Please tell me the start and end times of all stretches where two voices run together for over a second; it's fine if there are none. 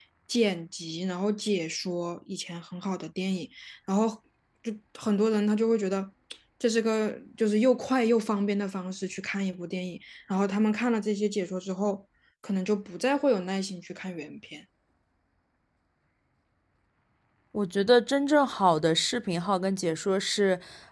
none

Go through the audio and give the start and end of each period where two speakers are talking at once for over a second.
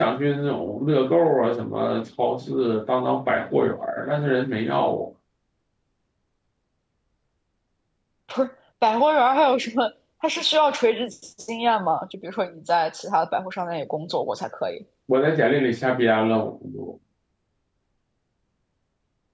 none

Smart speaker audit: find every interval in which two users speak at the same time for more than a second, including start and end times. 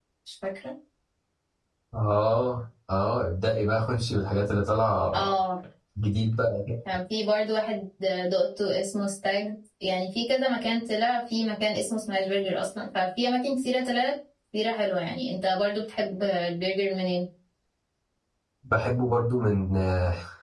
none

